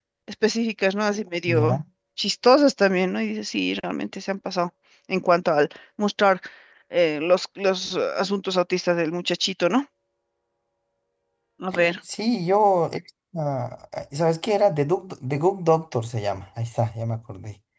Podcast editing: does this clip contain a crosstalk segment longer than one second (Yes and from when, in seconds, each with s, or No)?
No